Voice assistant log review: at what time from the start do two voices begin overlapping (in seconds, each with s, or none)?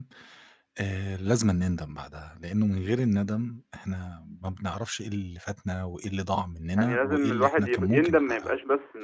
6.8 s